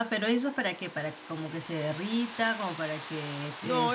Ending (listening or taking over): taking over